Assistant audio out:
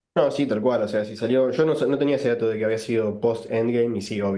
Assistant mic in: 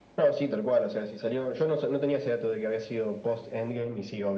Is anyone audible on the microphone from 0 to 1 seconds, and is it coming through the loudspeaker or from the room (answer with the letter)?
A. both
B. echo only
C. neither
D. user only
B